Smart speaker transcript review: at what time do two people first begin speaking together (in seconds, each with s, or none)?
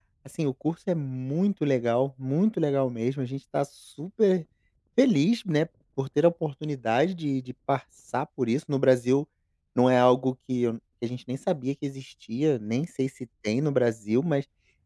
none